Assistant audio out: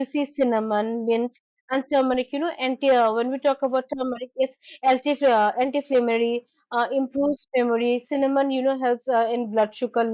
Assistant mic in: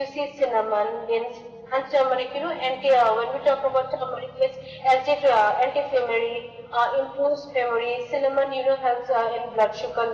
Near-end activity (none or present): none